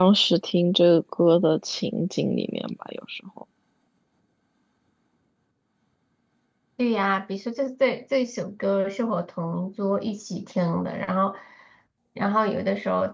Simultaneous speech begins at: none

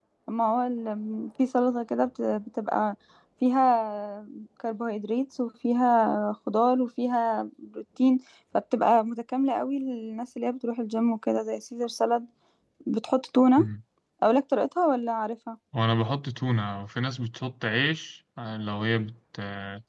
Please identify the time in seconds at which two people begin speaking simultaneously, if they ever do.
none

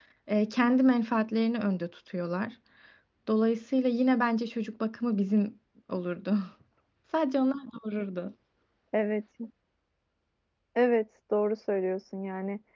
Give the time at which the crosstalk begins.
none

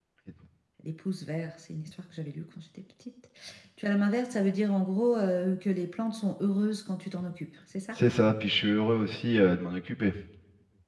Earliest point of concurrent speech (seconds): none

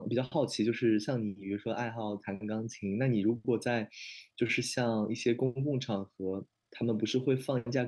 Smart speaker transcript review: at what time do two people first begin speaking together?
none

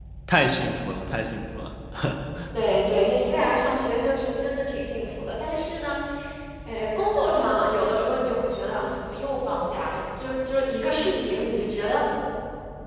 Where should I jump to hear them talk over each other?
none

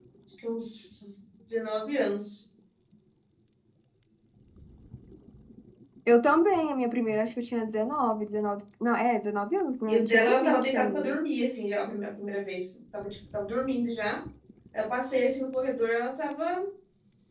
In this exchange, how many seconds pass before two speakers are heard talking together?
9.9 s

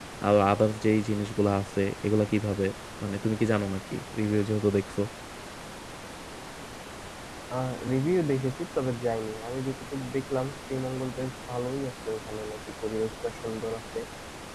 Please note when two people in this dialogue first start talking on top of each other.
none

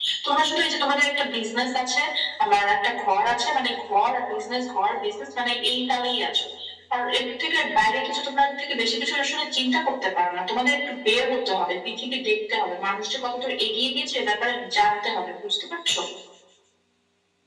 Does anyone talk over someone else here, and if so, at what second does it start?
none

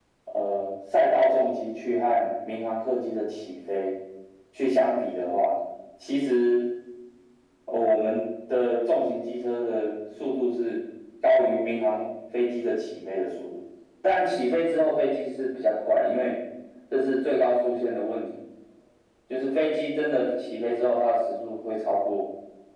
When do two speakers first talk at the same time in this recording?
none

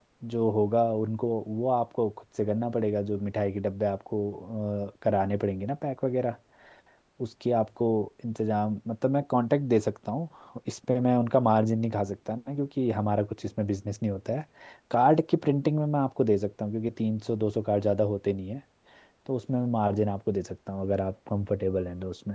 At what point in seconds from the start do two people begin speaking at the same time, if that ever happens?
none

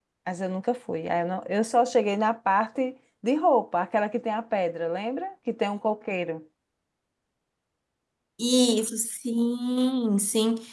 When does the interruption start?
none

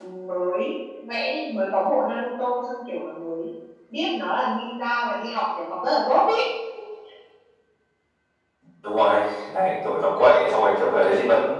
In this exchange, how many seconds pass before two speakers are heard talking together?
none

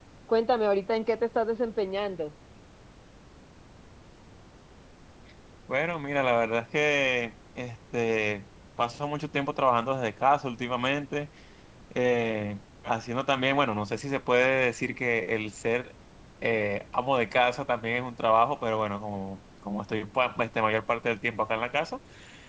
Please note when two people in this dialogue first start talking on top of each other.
none

